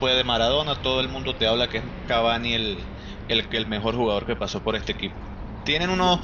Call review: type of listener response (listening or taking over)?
listening